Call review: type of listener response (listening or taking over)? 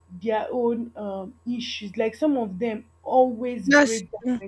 listening